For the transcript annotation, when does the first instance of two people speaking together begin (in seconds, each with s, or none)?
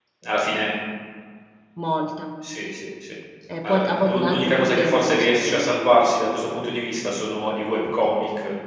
3.6 s